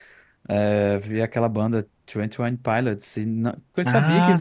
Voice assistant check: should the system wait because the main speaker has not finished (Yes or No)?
Yes